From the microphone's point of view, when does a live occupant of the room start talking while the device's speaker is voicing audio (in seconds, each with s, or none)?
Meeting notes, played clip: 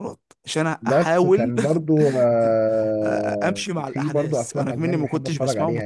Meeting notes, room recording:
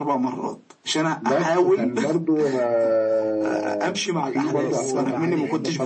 4.4 s